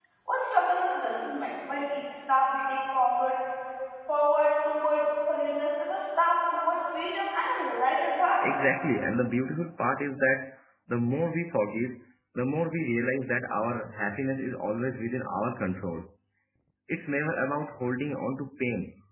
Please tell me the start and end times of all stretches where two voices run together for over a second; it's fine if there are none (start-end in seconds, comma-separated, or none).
none